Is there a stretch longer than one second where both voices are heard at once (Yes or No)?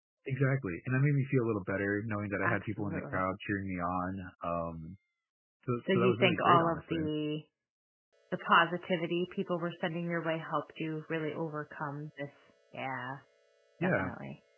Yes